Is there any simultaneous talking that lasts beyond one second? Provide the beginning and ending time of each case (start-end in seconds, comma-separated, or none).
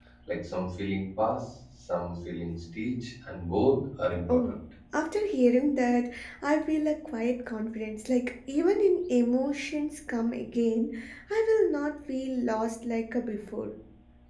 none